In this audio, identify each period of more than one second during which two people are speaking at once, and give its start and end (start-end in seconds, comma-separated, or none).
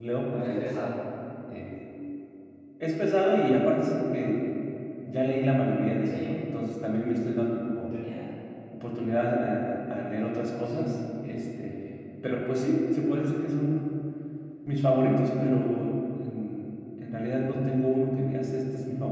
none